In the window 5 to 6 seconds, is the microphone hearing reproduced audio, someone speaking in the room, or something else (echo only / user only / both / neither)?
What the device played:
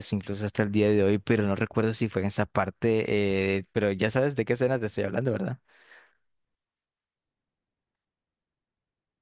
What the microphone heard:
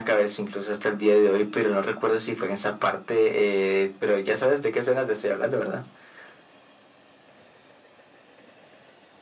echo only